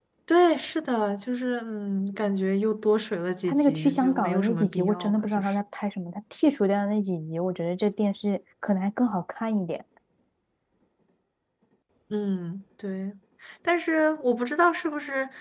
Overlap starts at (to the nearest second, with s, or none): 3 s